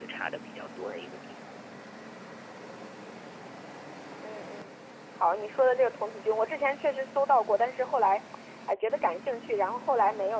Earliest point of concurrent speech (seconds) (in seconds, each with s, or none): none